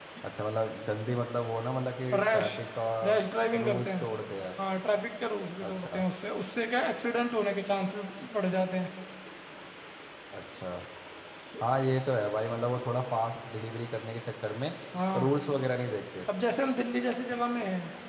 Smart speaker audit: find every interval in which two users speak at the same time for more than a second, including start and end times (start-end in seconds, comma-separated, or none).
none